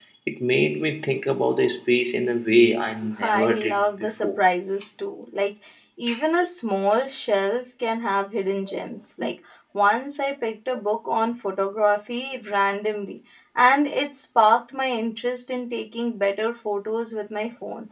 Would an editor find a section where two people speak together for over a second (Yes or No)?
Yes